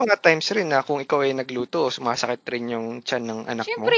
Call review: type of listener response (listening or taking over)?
taking over